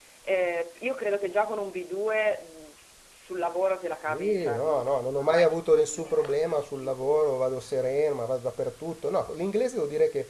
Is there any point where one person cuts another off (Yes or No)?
Yes